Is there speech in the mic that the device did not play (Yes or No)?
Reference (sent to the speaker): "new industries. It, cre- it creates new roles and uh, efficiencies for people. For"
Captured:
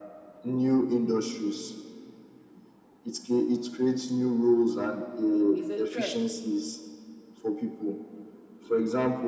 Yes